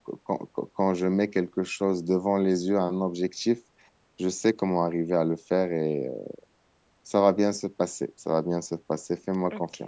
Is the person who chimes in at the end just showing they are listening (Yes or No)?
No